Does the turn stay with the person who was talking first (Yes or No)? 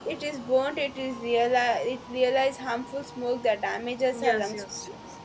No